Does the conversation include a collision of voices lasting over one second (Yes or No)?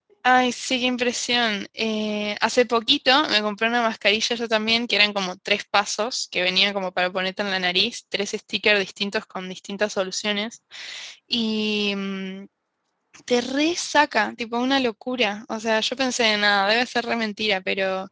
No